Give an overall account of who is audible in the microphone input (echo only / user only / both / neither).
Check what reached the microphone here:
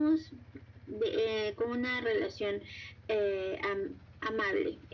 echo only